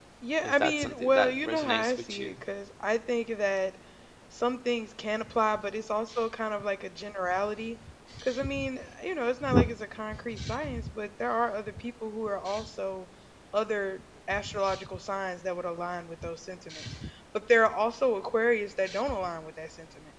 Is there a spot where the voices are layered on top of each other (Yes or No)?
Yes